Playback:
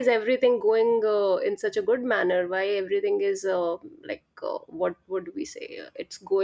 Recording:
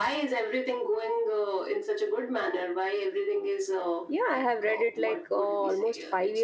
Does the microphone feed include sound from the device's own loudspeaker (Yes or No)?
Yes